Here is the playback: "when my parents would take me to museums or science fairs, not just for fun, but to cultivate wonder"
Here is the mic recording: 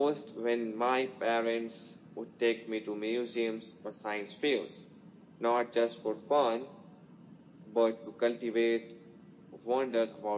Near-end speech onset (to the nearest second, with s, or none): none